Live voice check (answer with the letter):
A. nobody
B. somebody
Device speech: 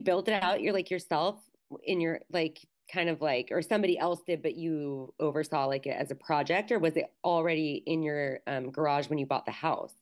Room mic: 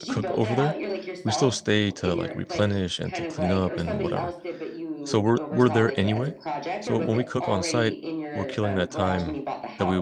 B